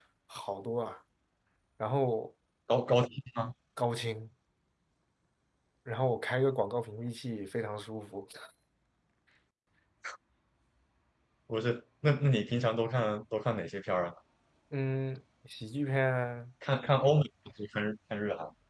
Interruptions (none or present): none